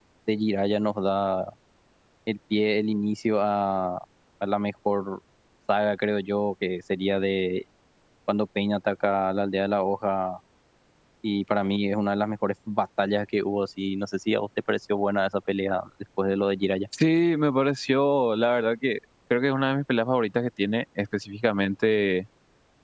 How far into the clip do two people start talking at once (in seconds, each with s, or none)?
none